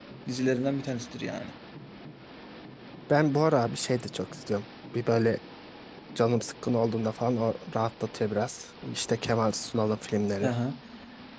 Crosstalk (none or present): none